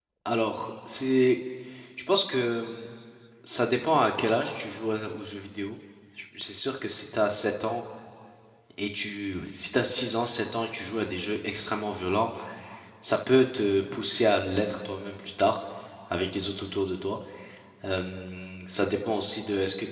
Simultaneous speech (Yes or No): No